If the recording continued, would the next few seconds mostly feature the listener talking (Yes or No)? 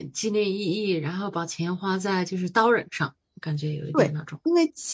Yes